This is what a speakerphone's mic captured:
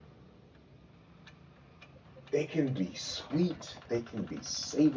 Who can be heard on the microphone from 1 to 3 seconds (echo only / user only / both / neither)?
user only